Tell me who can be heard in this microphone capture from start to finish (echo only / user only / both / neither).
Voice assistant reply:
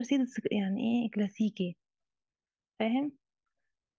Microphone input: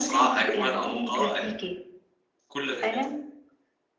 both